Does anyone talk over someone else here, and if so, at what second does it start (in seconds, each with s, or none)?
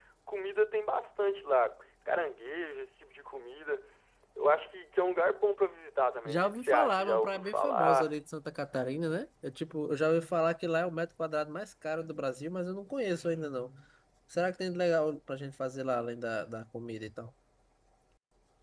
6.2 s